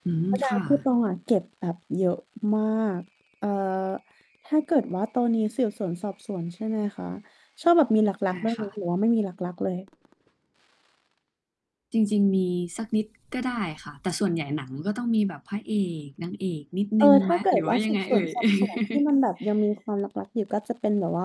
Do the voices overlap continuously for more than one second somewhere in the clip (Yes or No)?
Yes